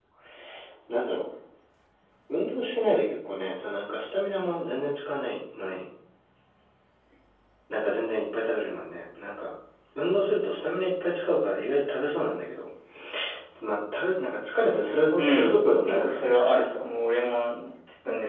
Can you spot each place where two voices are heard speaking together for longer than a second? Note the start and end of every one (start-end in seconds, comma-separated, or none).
15.2-16.6